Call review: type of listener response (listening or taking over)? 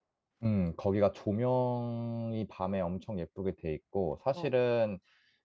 listening